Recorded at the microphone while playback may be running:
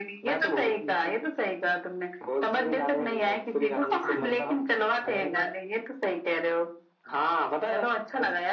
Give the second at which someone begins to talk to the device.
3.9 s

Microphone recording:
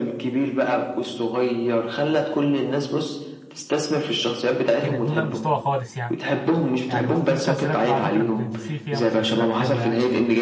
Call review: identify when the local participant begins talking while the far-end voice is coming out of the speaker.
4.8 s

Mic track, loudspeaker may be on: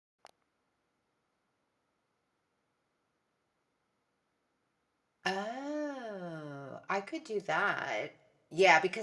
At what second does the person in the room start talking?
5.2 s

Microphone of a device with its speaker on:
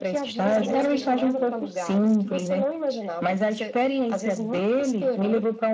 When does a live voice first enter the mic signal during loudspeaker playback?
0.4 s

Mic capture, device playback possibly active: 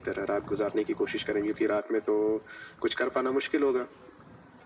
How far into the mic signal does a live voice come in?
none

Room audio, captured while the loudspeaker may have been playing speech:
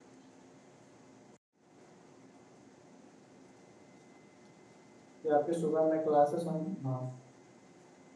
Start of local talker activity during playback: 5.0 s

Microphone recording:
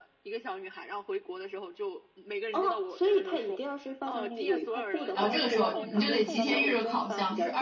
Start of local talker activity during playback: 5.1 s

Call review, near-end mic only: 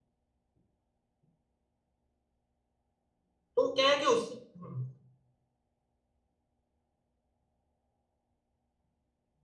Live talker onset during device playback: 3.6 s

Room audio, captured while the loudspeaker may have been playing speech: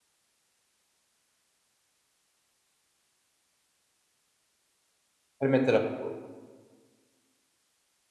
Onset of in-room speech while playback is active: 5.4 s

